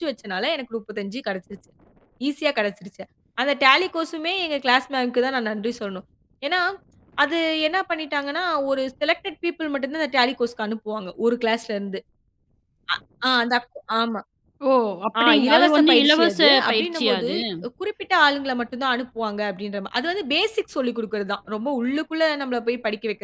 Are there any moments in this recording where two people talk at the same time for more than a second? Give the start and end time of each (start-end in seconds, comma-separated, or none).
15.2-17.3